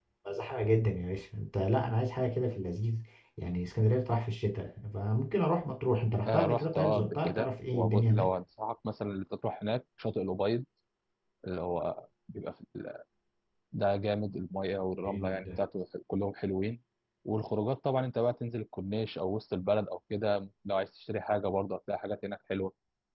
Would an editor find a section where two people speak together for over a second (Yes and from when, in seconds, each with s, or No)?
Yes, from 6.3 s